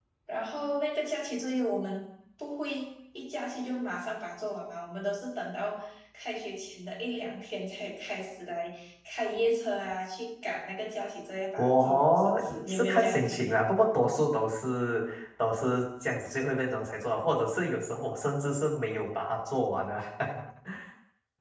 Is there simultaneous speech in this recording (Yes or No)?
Yes